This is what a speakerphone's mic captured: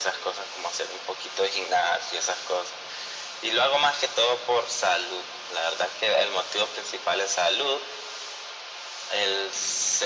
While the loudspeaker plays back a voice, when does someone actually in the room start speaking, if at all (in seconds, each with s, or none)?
none